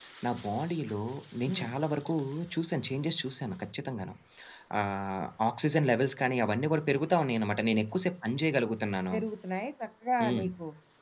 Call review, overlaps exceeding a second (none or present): none